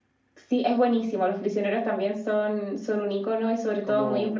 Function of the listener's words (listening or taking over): listening